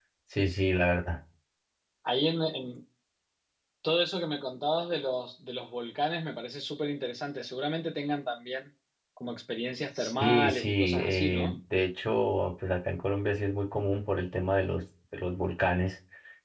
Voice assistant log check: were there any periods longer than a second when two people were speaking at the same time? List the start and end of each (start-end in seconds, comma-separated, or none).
10.0-11.6